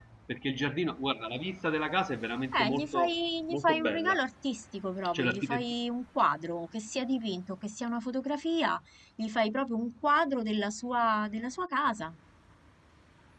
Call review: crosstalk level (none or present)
present